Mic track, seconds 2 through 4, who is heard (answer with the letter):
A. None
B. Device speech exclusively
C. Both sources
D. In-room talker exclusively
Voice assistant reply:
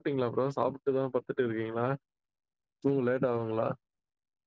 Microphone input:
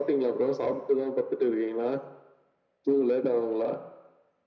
B